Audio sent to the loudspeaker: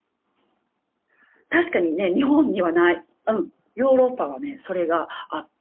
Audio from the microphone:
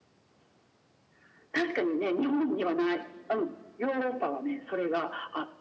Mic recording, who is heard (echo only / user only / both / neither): echo only